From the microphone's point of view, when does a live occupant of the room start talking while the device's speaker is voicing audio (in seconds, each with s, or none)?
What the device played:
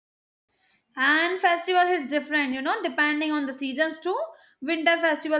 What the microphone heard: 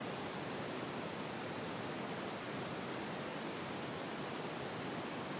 none